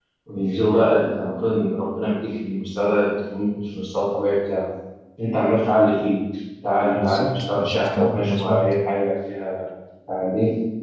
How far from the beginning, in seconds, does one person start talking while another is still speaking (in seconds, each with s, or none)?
7.0 s